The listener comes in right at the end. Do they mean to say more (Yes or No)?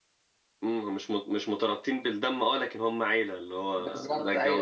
Yes